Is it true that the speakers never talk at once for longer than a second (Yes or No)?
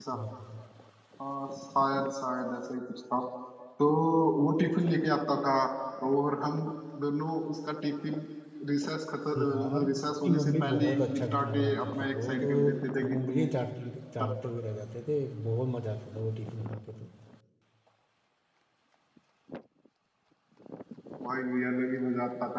No